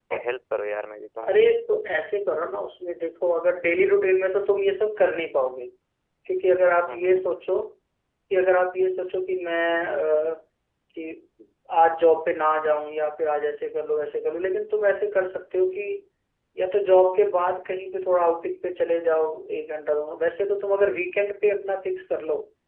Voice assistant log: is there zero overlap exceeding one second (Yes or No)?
Yes